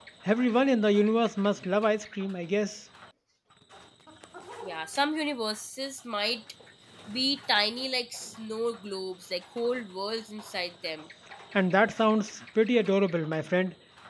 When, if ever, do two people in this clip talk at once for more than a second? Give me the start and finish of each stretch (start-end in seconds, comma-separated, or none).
none